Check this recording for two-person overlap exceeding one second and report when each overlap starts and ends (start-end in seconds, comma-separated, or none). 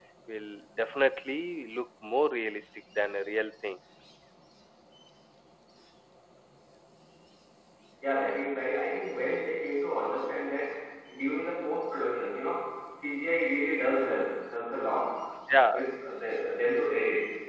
none